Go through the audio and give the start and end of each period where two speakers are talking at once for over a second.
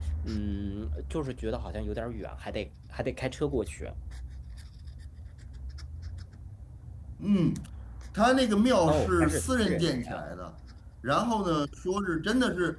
8.9-10.2

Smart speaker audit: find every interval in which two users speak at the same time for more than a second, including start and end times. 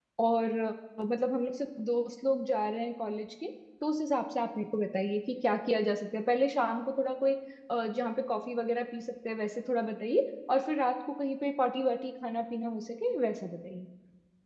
none

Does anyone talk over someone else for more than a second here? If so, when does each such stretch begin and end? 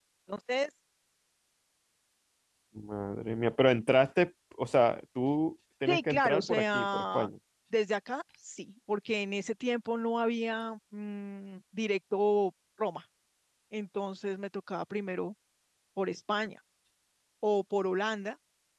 5.9-7.3

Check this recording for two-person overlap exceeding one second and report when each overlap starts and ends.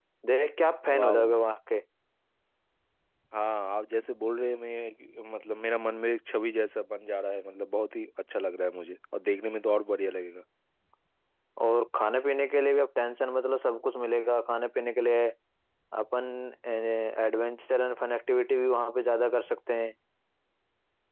none

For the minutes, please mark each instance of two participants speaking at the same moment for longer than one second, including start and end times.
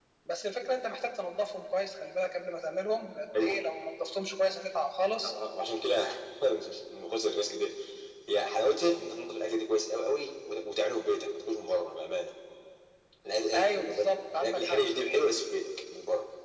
13.5-14.8

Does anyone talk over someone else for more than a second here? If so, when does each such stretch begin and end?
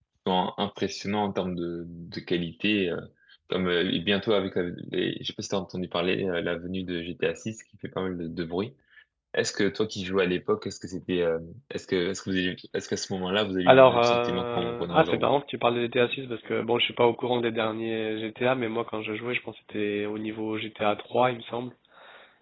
13.7-15.3

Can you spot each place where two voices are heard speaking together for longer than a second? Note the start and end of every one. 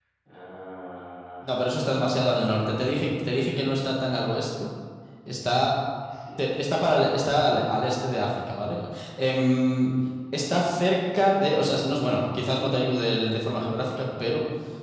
1.4-2.9

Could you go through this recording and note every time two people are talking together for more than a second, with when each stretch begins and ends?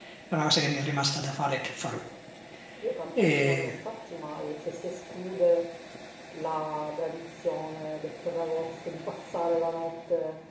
none

